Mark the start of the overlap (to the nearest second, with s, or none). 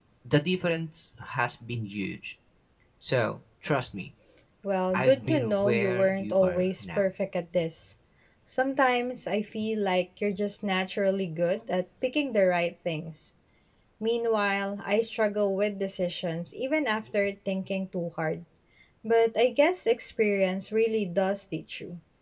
5 s